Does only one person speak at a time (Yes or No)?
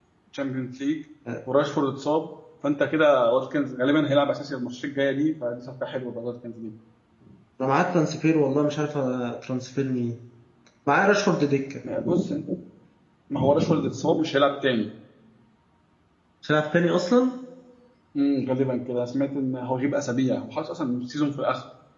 Yes